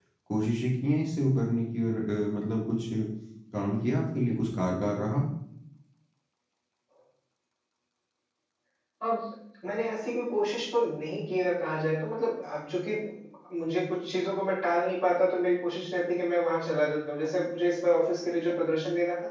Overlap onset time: none

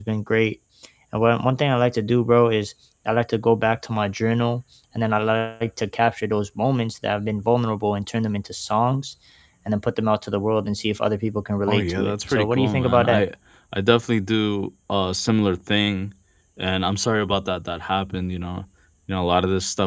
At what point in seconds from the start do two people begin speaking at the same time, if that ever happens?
11.7 s

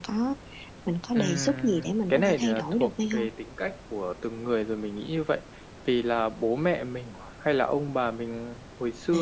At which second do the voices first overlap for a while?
1.1 s

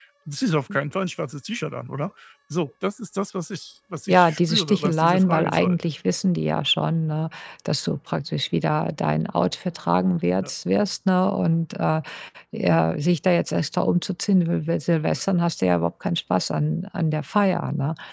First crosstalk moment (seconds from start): 4.1 s

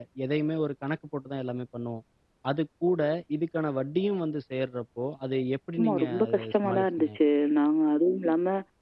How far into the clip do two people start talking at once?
5.8 s

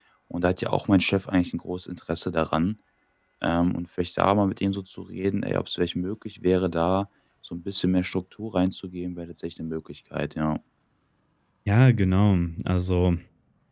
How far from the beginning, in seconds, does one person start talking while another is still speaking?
none

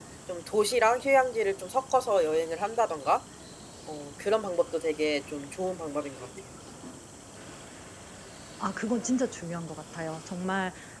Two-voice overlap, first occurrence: none

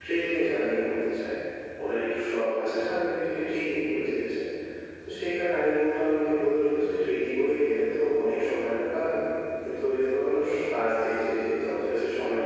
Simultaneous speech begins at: none

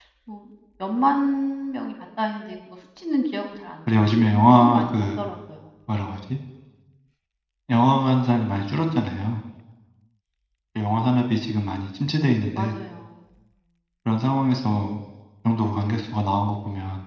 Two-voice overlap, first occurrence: 3.9 s

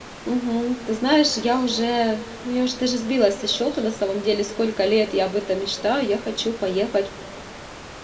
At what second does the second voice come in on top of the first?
none

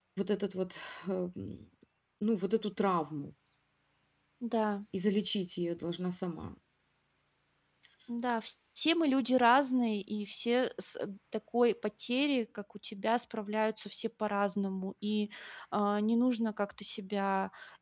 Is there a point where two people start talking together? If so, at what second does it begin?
none

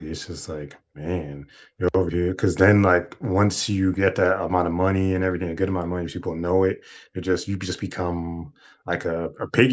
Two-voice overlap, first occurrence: none

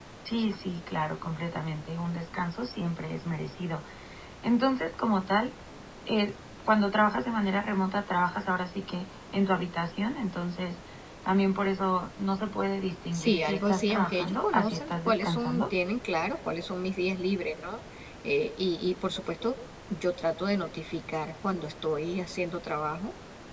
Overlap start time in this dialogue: 13.1 s

